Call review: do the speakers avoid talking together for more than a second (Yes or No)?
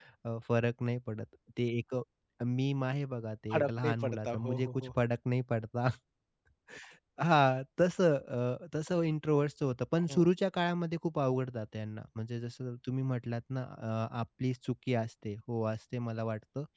No